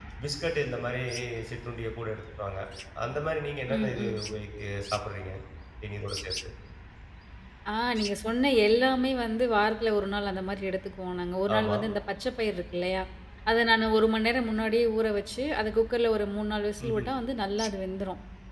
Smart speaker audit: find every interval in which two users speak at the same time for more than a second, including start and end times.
none

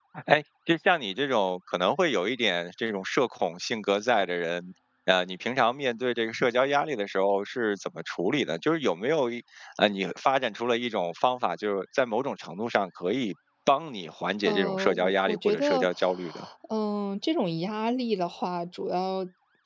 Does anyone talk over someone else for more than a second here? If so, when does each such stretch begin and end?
14.4-15.9

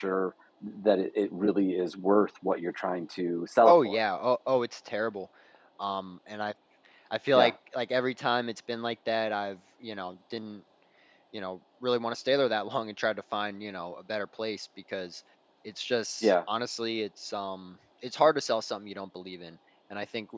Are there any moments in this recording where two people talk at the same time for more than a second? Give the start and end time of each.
none

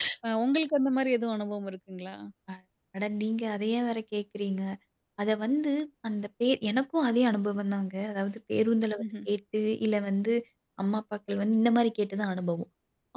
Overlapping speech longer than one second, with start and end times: none

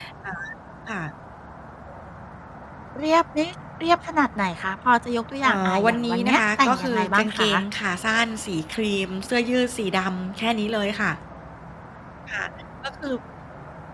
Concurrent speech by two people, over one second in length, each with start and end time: 5.4-7.5

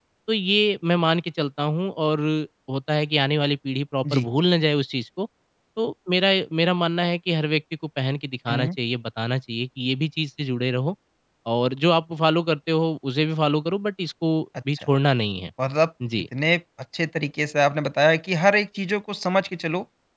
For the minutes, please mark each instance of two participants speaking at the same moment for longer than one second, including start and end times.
none

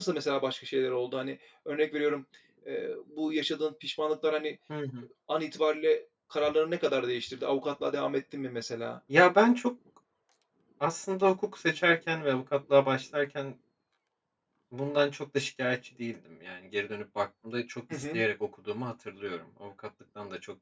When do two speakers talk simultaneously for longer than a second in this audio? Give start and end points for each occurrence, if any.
none

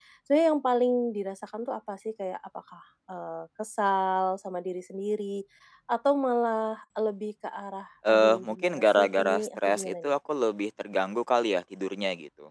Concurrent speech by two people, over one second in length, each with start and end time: 8.1-10.1

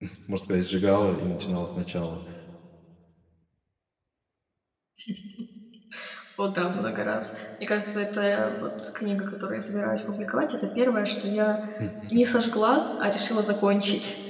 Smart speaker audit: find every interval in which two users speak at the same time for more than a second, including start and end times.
none

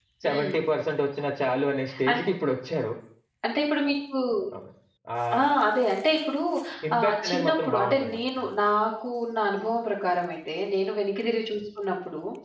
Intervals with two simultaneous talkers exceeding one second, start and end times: 7.0-8.2

